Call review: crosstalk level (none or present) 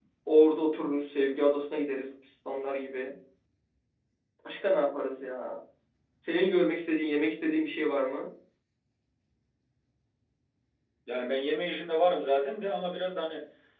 none